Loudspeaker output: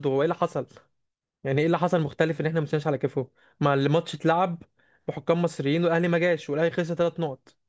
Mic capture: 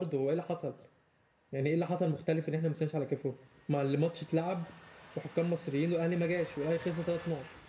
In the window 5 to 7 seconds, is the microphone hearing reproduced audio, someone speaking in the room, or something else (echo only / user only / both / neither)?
echo only